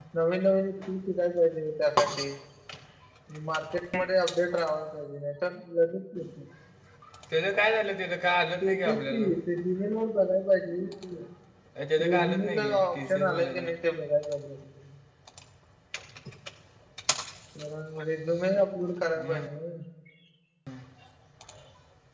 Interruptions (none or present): present